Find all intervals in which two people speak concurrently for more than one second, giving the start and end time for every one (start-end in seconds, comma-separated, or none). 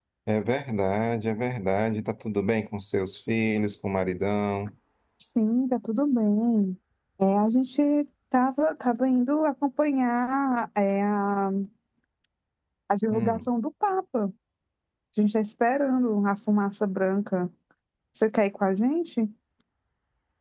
none